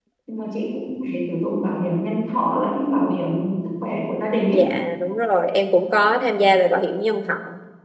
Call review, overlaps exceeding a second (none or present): none